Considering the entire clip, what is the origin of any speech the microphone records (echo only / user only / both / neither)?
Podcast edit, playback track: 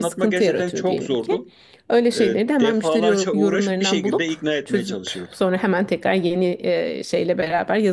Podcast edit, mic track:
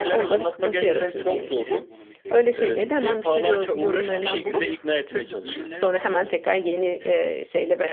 both